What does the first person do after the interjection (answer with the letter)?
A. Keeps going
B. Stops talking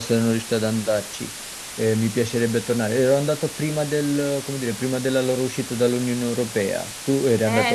B